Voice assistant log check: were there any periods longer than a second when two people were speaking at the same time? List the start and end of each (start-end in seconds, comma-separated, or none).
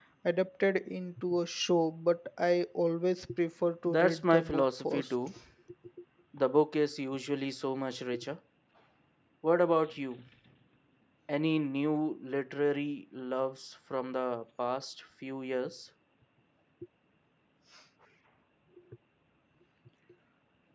3.8-5.1